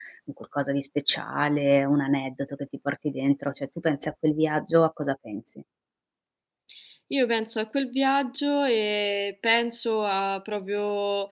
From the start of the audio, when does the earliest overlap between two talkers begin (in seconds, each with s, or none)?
none